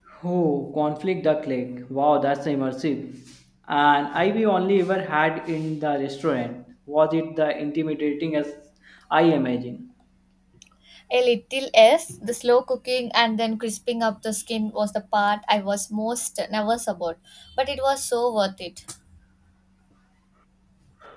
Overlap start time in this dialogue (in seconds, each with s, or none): none